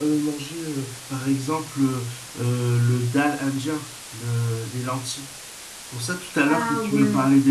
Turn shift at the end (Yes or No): No